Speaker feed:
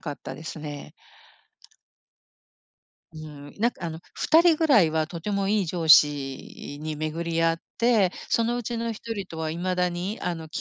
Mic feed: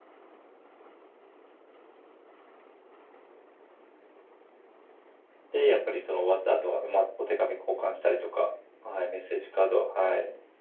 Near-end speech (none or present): present